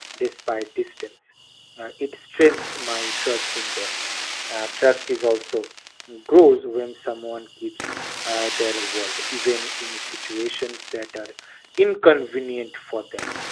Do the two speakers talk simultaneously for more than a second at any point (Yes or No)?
No